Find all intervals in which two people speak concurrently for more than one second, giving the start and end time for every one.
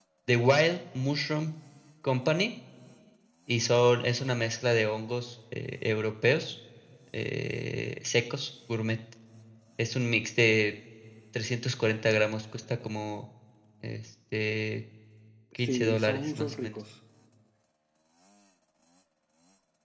15.6-16.8

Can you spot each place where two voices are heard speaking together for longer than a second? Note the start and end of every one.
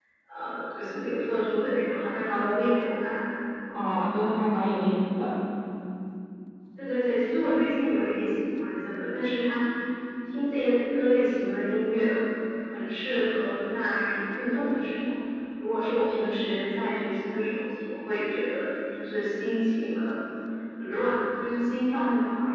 none

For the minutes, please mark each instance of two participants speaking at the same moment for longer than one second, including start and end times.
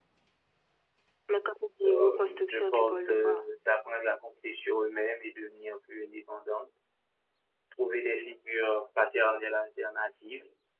1.9-3.5

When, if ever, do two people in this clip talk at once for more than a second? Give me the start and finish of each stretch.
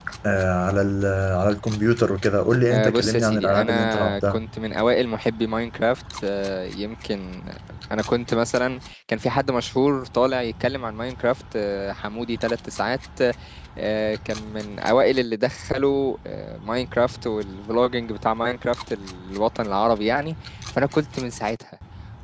2.7-4.4

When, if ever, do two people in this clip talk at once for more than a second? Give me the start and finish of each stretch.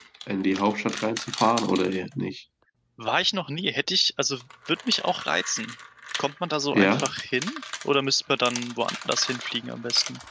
none

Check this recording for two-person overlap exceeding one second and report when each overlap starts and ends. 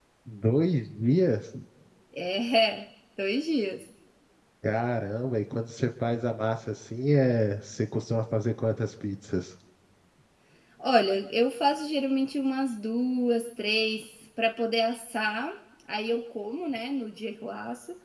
none

